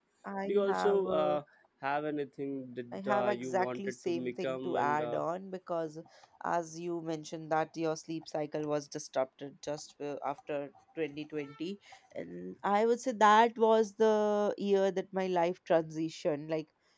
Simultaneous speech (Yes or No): Yes